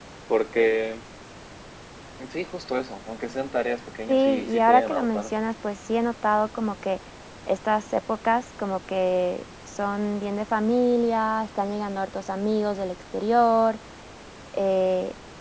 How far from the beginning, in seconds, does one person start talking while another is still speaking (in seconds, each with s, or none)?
4.1 s